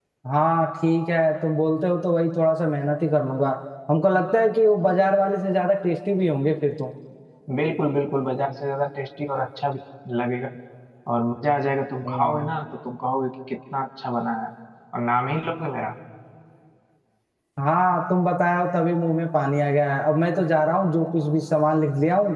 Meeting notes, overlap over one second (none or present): none